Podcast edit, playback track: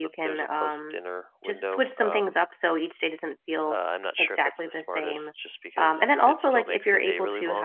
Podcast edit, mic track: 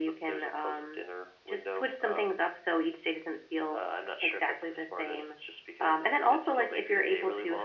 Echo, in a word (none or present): present